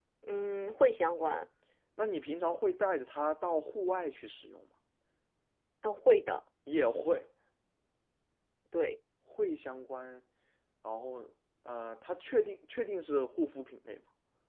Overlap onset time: none

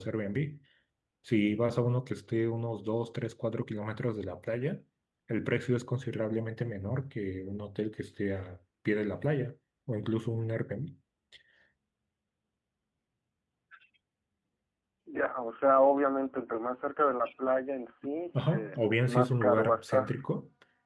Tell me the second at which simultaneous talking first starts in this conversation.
18 s

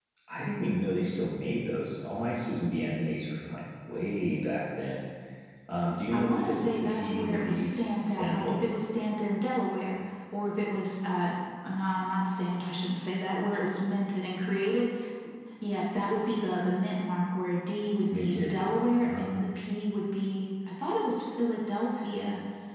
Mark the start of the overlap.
6 s

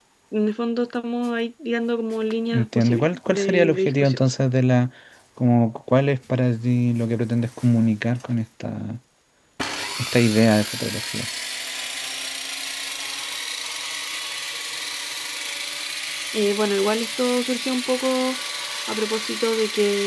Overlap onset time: 3 s

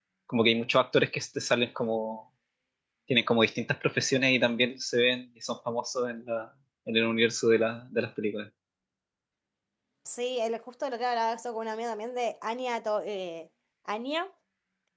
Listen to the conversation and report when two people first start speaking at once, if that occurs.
none

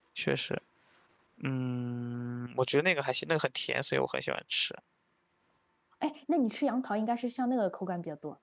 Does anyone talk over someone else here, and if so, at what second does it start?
none

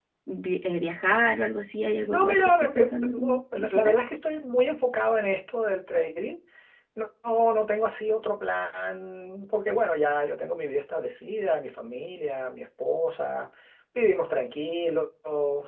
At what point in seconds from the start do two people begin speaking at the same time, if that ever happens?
2 s

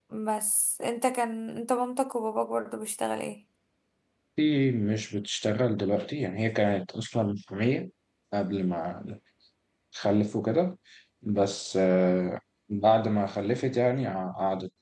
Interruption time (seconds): none

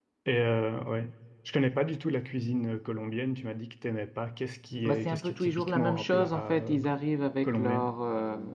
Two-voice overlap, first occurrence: 5 s

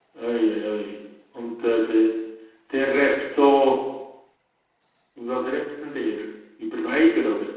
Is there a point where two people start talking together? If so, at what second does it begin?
none

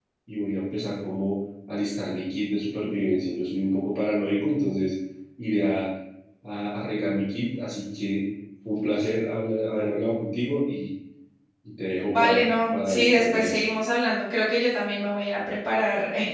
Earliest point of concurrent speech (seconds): 12 s

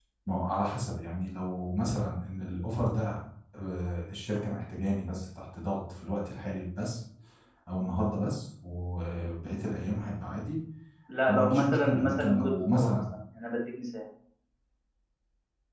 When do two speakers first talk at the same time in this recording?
11 s

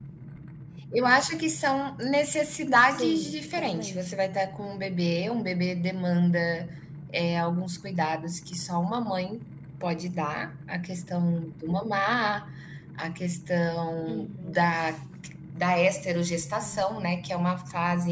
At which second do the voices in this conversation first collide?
3 s

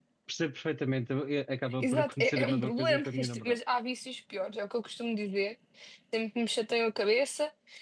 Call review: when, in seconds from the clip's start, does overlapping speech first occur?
2 s

